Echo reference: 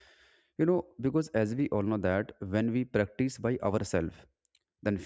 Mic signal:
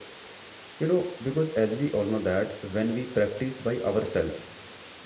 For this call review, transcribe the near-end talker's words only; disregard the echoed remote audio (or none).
none